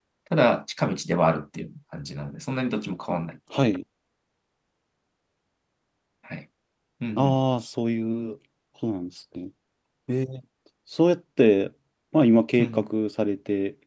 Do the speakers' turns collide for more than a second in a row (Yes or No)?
No